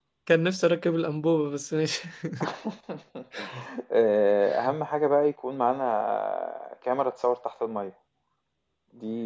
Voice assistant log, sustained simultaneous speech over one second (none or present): none